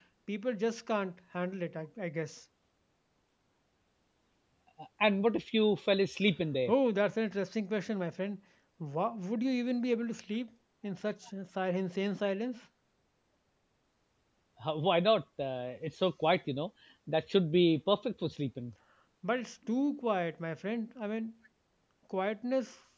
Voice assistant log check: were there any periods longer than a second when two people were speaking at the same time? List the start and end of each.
none

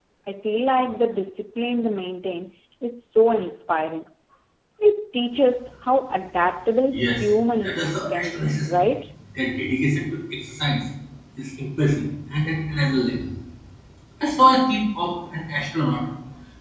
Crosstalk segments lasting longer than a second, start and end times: 6.9-8.9

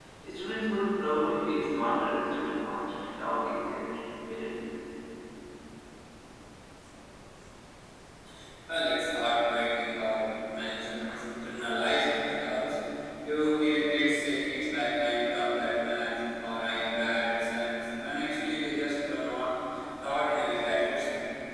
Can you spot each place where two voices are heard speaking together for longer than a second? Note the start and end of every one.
none

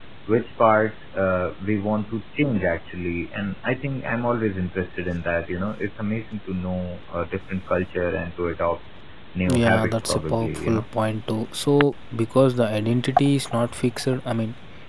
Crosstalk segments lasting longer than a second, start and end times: 9.5-10.8

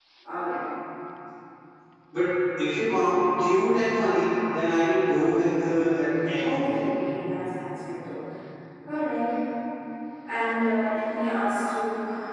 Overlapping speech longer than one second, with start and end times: none

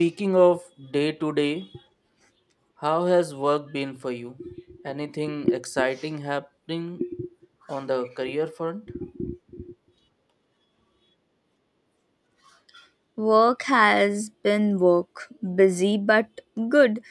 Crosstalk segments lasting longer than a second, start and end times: none

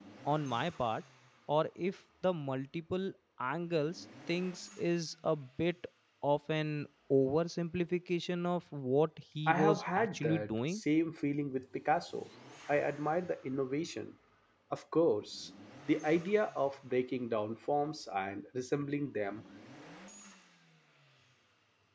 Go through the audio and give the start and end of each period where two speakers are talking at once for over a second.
9.5-10.8

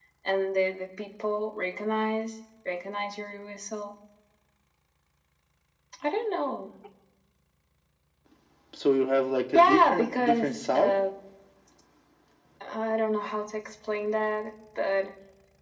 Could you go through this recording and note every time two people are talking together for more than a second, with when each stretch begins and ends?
9.5-10.9

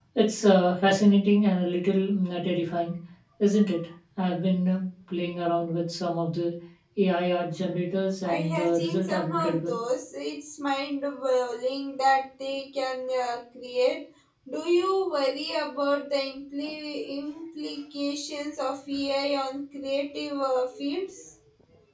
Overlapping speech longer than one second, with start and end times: 8.2-9.8

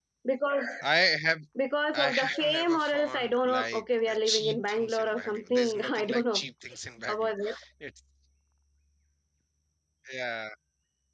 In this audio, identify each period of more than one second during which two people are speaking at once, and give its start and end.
1.9-6.4

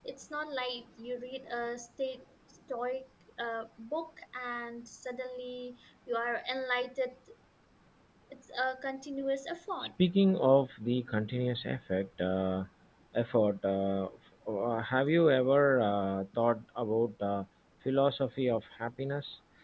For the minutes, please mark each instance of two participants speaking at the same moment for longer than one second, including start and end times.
none

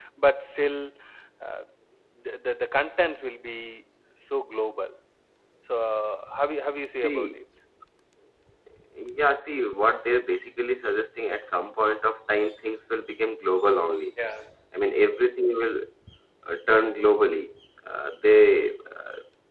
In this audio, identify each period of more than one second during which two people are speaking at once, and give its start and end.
none

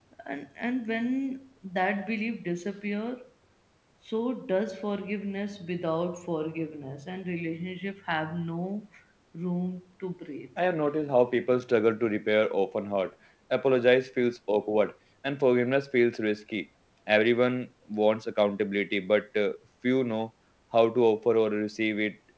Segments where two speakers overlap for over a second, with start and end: none

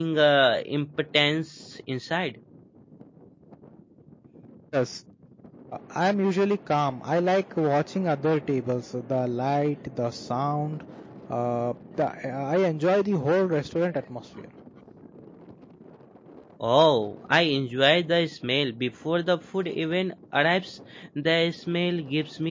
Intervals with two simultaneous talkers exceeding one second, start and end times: none

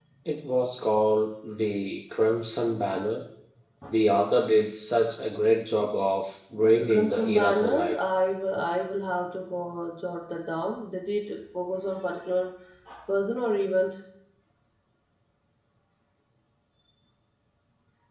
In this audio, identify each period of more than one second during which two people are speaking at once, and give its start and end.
6.7-8.0

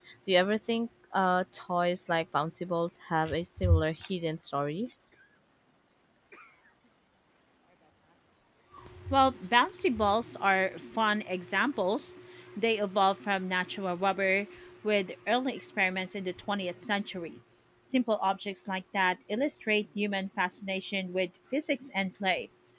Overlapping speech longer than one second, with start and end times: none

